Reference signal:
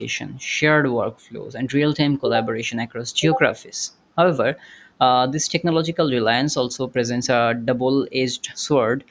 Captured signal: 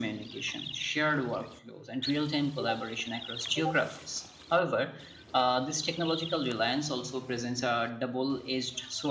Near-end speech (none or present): none